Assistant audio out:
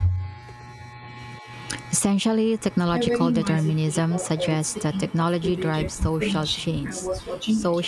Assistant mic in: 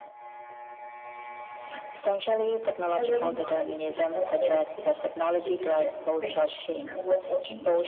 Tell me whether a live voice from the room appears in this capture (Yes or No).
No